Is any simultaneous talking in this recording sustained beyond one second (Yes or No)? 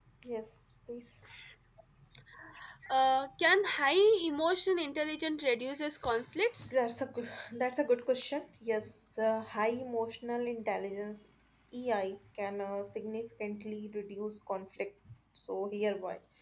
No